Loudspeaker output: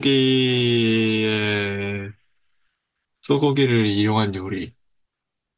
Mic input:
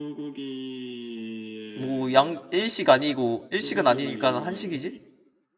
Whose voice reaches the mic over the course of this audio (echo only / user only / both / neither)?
both